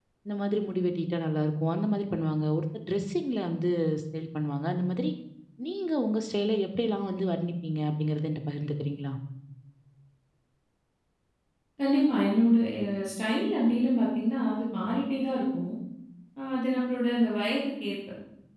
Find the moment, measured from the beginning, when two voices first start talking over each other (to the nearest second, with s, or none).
none